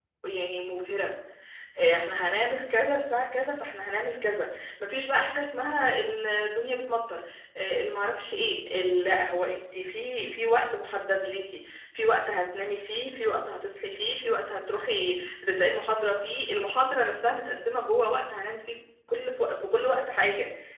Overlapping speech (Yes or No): No